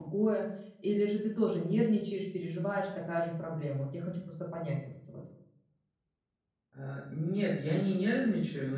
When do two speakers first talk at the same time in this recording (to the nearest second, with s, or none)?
none